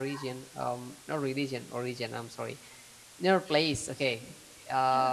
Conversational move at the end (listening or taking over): listening